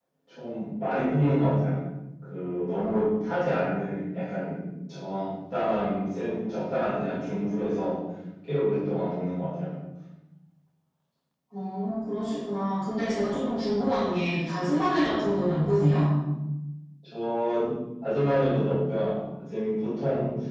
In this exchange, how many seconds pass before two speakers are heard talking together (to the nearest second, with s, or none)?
none